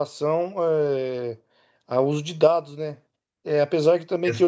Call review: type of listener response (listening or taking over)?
listening